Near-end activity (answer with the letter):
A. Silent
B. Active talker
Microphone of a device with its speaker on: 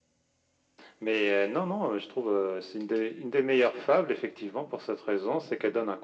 A